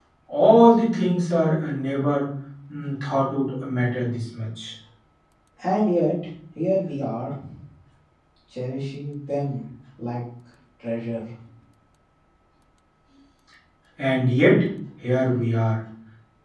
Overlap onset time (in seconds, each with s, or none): none